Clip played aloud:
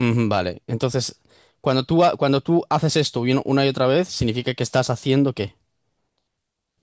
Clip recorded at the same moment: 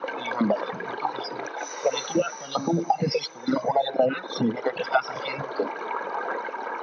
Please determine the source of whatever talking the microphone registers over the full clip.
echo only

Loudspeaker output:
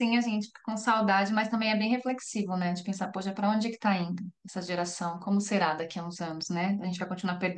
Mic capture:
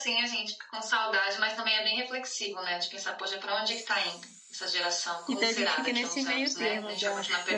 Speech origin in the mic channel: both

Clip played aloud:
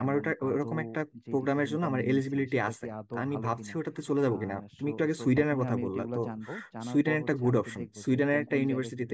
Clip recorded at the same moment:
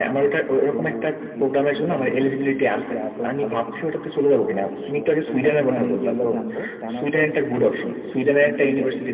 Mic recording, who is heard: echo only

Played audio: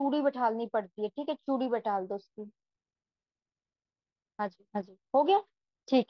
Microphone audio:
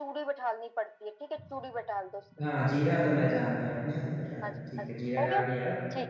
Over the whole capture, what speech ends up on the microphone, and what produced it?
both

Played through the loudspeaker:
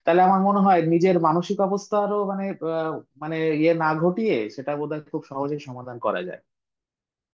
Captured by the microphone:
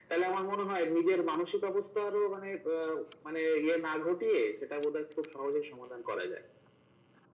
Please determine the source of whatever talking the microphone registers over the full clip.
echo only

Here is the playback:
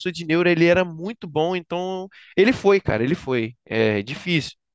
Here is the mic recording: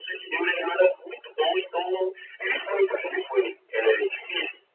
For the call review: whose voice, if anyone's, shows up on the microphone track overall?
echo only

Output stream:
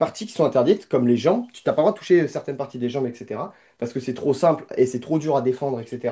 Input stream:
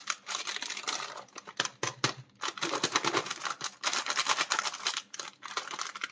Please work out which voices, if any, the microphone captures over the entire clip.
neither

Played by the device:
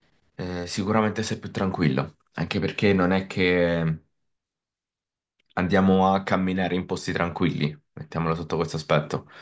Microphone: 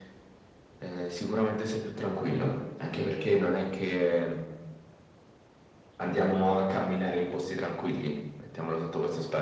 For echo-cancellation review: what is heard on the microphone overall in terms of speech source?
echo only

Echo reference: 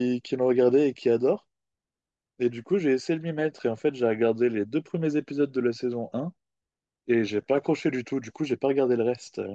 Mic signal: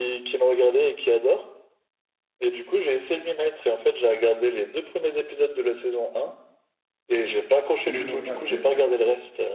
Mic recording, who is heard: both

